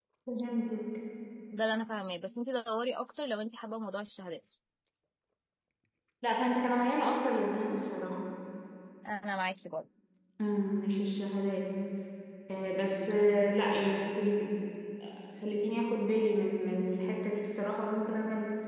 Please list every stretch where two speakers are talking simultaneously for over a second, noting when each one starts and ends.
none

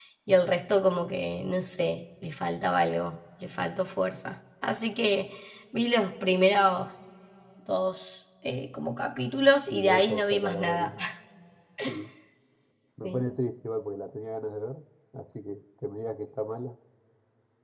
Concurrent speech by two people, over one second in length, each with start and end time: 9.7-11.0

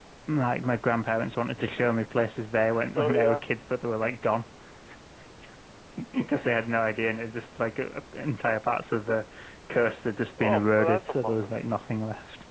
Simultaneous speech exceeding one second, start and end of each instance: 10.4-11.6

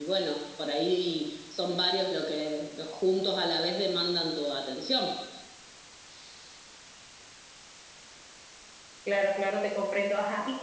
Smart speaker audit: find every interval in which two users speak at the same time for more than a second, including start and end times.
none

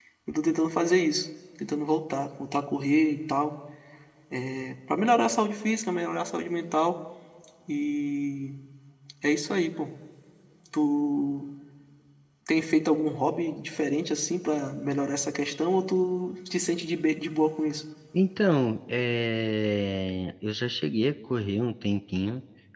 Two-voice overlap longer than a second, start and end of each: none

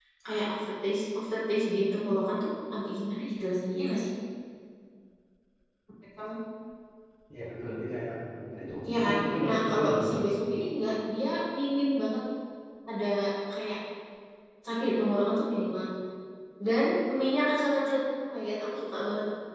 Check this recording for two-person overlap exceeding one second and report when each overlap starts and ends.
8.9-10.1

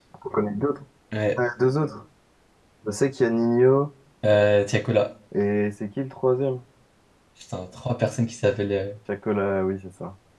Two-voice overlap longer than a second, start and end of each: none

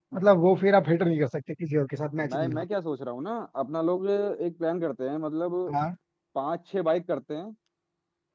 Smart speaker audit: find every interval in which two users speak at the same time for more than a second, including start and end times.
none

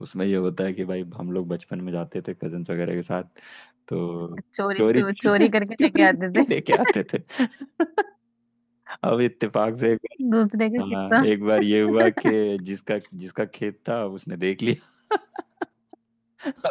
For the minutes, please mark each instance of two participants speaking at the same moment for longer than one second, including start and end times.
4.8-6.5

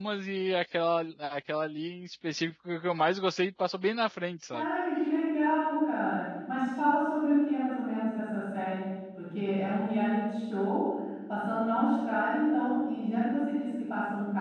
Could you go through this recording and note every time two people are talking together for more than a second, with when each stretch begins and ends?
none

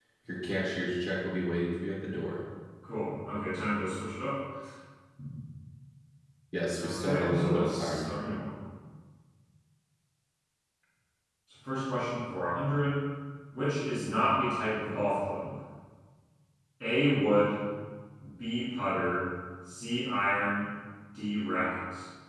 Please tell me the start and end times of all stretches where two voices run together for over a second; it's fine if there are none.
6.8-8.1

